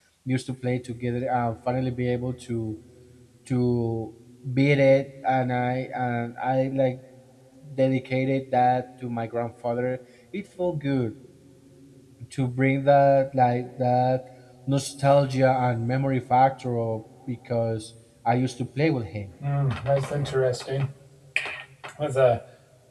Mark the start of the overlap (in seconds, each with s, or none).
none